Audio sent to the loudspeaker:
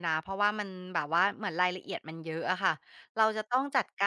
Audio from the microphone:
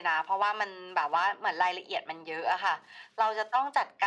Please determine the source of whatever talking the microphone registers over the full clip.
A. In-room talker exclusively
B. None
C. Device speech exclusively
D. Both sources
C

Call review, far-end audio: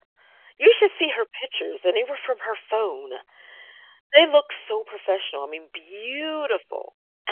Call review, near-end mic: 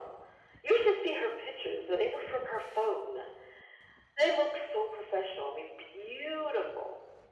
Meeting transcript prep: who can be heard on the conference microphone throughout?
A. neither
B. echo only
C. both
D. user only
B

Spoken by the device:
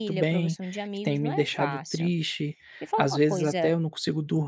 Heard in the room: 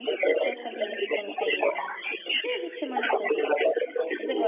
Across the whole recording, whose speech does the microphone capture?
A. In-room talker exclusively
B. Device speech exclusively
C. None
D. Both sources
D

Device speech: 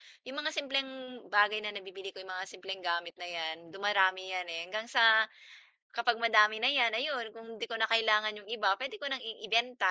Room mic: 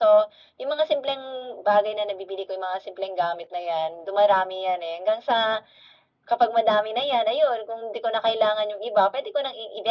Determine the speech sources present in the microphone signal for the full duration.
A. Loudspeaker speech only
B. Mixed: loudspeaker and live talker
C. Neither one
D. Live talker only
A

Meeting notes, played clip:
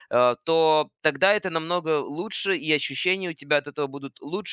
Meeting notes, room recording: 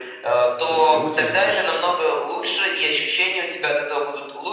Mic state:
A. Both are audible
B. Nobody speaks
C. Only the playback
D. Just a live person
A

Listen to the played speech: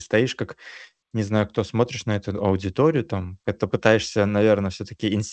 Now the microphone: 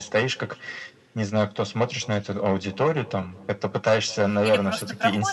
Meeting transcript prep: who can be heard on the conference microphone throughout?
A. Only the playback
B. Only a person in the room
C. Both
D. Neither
C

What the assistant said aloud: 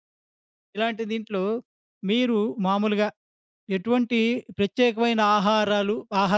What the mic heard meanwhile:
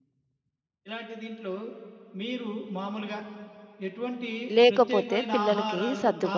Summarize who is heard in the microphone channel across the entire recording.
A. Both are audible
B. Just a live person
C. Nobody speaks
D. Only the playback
A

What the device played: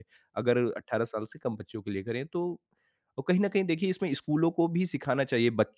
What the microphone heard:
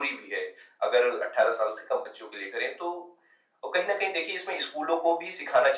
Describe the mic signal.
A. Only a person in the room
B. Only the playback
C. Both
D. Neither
B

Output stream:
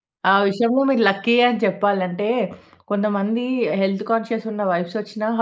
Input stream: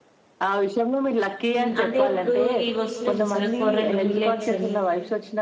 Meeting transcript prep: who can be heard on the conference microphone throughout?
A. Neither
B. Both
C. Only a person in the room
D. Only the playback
B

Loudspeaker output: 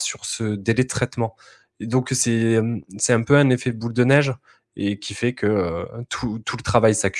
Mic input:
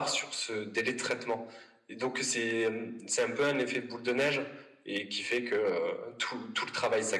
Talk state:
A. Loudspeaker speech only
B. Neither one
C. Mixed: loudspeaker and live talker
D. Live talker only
A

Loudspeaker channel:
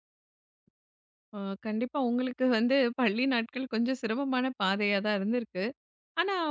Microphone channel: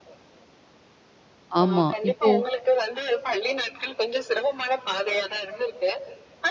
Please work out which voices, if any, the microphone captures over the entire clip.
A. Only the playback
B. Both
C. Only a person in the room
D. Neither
B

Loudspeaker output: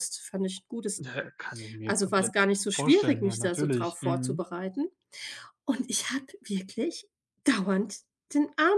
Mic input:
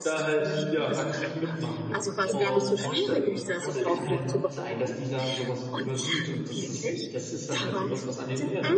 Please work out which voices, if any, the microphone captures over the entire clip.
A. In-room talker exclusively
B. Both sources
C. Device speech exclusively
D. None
B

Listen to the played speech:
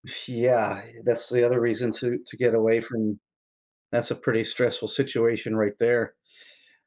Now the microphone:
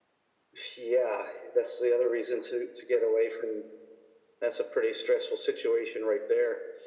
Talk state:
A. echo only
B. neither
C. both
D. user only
A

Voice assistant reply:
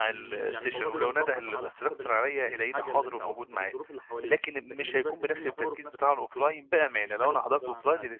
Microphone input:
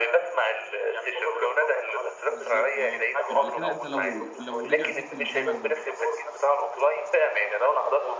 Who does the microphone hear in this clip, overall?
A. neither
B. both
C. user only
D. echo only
B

